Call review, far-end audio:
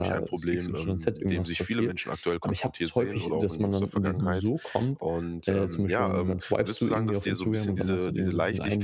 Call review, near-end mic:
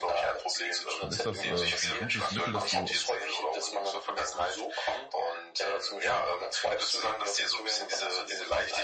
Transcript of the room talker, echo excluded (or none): dann ist das, äh, 'n gutes Mittel, das du